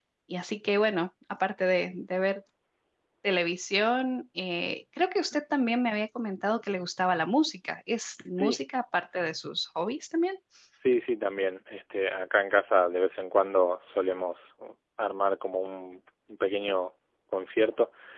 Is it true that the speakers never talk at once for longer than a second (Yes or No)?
Yes